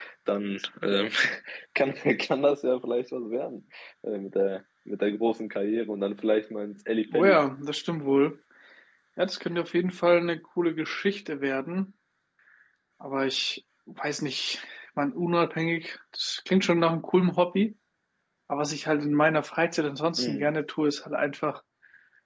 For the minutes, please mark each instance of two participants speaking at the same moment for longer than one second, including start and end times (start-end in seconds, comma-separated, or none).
none